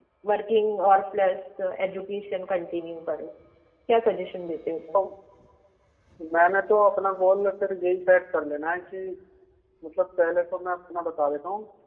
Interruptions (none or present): none